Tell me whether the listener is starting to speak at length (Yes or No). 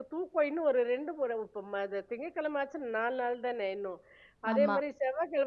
No